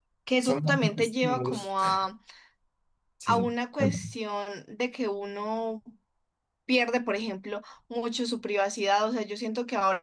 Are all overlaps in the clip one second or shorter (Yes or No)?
No